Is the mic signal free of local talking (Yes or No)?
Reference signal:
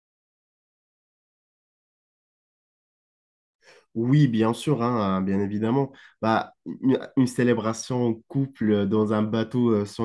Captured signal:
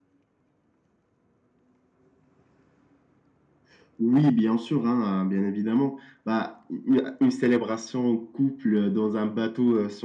Yes